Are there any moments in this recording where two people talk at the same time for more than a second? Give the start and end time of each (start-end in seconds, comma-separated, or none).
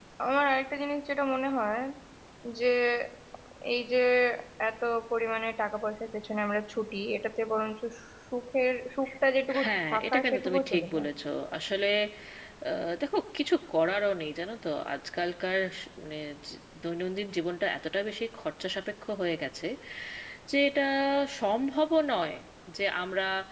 9.6-11.1